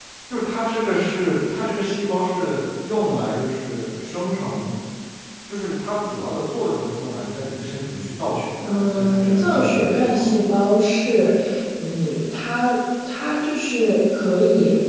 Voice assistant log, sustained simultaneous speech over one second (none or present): present